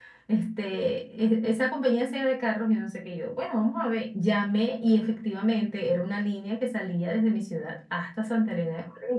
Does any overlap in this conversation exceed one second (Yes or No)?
No